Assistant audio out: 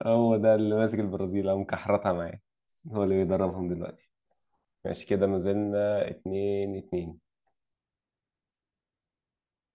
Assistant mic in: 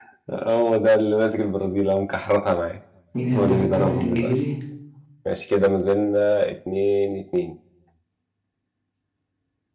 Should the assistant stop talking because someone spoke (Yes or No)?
Yes